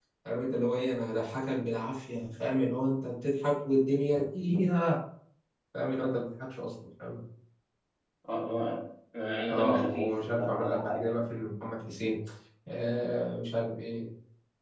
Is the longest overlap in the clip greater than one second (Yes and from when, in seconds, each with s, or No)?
Yes, from 9.5 s